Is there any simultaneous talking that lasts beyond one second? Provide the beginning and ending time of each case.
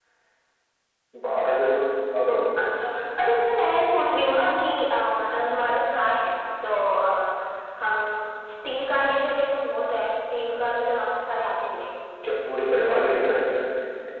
none

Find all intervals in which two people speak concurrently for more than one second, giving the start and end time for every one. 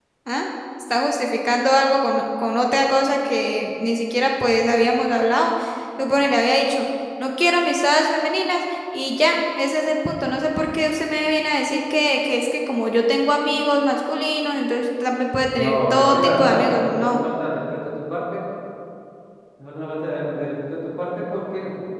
15.6-17.2

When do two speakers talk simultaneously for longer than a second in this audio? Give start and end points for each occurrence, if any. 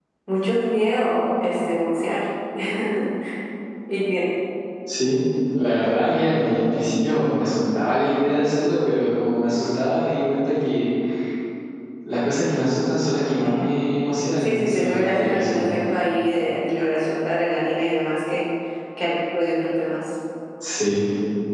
14.4-15.8

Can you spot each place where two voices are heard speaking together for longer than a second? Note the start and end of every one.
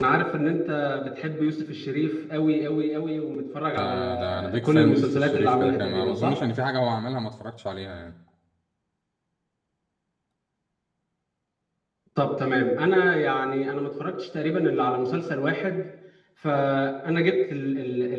3.8-6.3

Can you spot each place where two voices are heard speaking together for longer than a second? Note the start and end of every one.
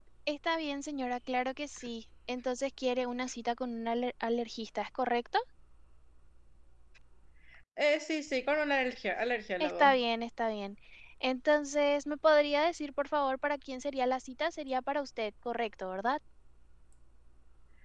none

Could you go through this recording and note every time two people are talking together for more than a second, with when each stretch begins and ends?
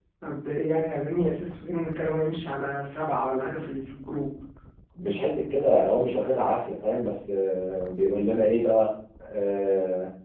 none

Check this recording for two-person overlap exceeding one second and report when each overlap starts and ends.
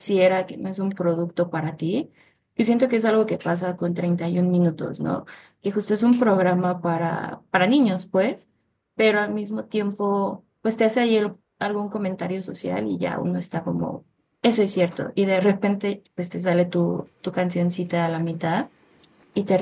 none

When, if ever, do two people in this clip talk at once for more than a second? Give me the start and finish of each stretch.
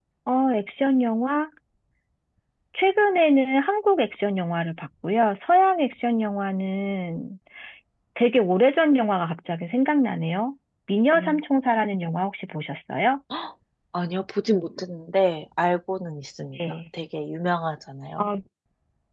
none

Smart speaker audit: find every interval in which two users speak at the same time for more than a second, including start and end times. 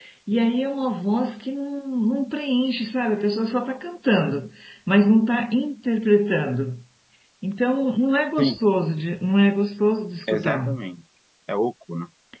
none

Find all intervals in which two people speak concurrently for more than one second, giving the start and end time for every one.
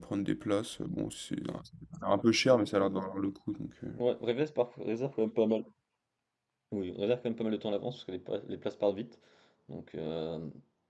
none

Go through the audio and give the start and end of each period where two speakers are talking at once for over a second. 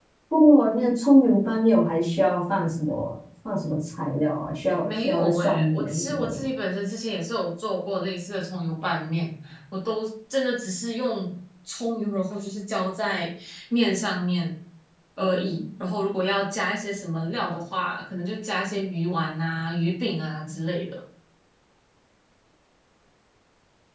4.8-6.5

